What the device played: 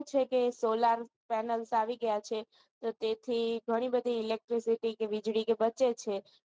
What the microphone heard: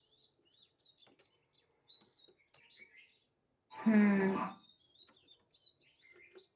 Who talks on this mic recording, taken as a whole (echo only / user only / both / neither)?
user only